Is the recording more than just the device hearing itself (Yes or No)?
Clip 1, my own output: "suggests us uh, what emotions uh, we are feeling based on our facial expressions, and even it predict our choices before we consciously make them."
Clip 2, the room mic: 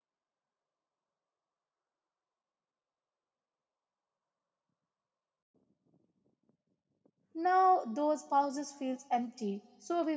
Yes